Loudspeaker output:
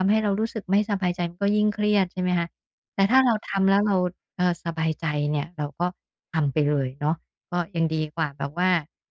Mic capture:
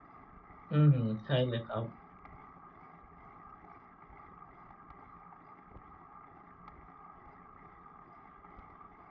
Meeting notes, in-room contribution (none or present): present